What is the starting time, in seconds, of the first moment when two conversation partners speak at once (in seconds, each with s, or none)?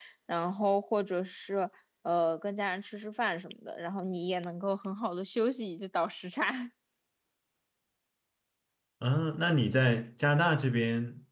none